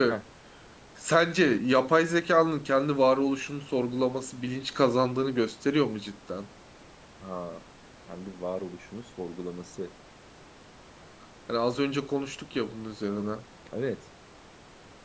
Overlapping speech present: No

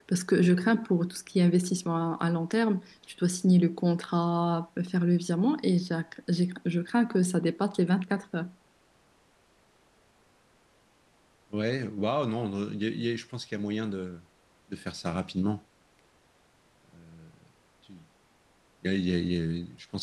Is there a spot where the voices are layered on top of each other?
No

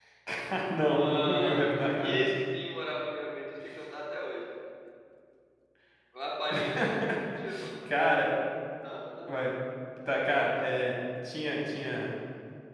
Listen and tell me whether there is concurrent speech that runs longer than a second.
Yes, from 0.9 s

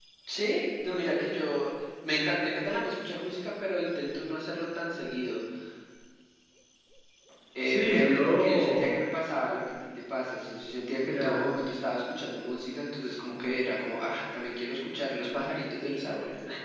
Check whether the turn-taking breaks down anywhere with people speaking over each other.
Yes, from 7.6 s

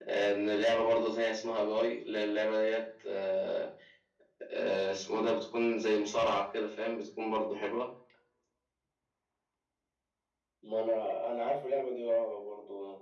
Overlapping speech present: No

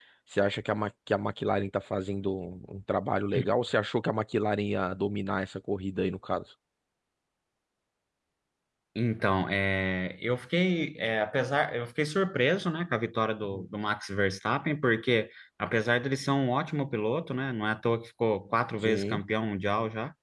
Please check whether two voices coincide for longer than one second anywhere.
No

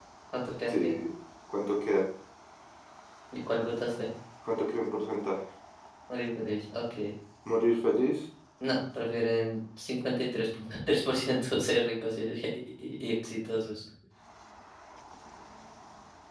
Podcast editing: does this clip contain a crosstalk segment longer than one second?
No

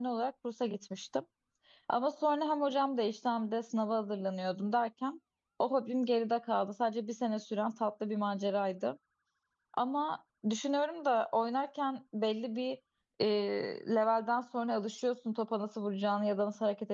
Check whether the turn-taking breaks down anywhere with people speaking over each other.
No

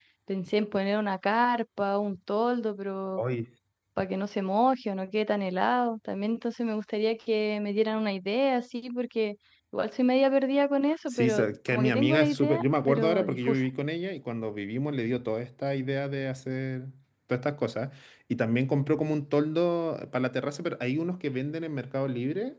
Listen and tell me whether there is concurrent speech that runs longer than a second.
Yes, from 11.1 s

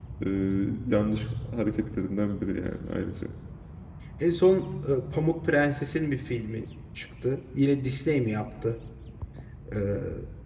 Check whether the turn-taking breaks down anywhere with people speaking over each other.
No

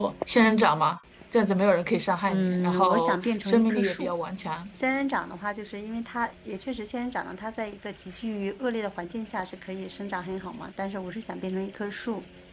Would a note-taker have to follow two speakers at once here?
Yes, from 2.3 s

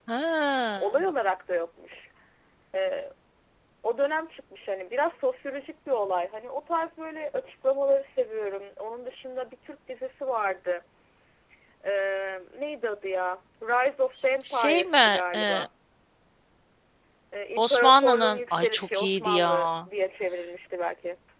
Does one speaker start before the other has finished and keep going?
Yes, from 14.4 s

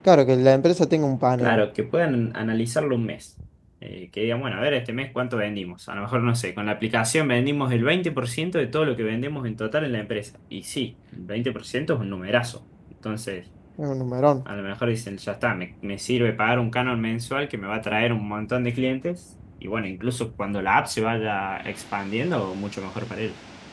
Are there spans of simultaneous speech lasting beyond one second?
No

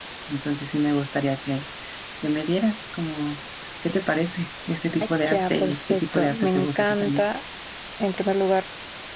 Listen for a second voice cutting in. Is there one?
Yes, from 5.3 s

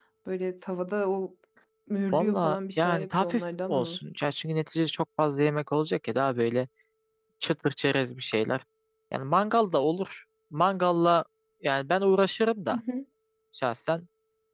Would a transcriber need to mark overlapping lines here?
Yes, from 2.1 s

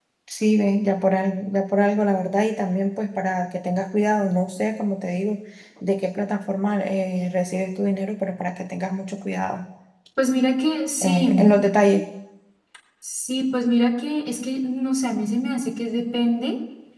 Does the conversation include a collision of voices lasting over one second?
No

